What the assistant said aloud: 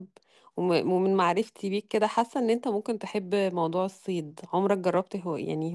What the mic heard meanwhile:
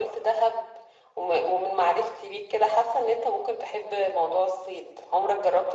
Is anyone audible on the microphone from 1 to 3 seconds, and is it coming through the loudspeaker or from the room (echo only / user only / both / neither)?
echo only